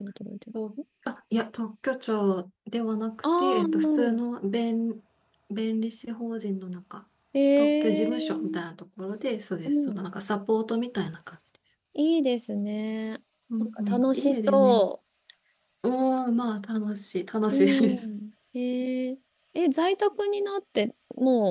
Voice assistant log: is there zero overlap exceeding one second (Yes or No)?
No